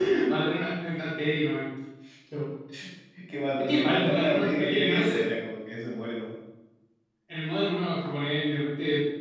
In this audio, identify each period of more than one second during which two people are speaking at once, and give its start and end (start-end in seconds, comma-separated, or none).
3.6-5.2